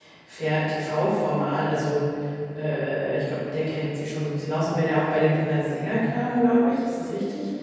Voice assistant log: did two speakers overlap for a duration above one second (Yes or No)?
No